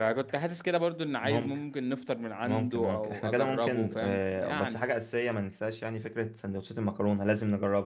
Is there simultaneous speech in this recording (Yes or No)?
Yes